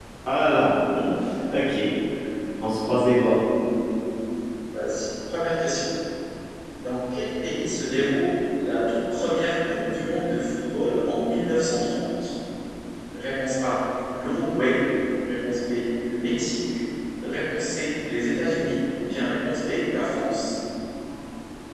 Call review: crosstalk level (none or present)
none